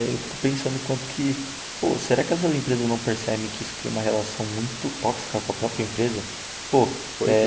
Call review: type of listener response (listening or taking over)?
listening